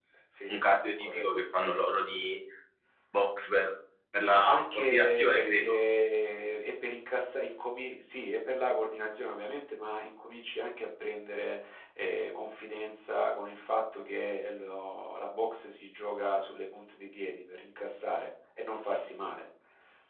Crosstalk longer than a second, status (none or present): present